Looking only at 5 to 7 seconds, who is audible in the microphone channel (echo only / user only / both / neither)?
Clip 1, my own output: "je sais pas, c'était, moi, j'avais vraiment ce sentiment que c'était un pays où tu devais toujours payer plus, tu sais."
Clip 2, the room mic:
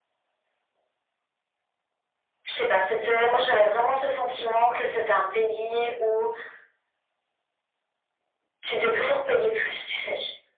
echo only